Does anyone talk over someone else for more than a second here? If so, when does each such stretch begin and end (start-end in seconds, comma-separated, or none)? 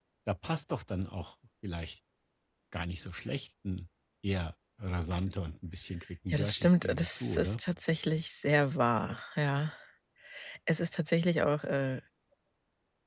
6.3-7.6